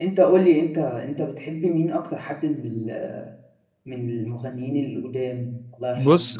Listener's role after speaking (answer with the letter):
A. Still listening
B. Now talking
B